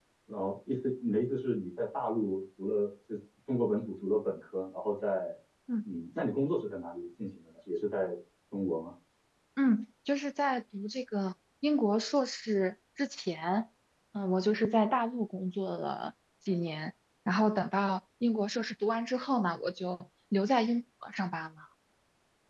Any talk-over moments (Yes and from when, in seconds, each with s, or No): No